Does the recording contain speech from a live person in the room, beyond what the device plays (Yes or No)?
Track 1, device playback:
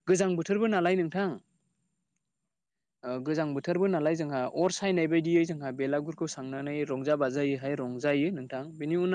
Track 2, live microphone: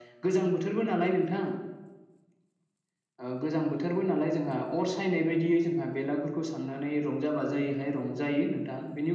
No